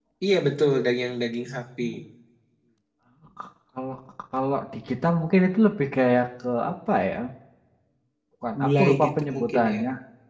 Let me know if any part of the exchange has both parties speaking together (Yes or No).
Yes